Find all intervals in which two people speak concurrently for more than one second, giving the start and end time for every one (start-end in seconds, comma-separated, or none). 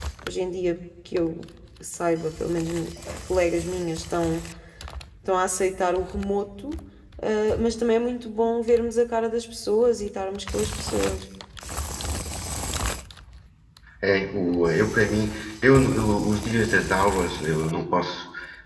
none